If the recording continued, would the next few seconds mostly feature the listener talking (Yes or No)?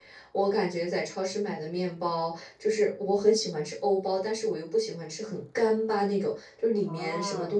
No